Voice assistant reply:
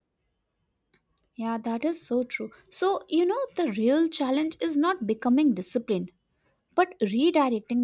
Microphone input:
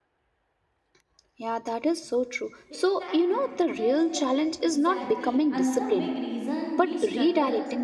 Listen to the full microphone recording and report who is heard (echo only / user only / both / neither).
both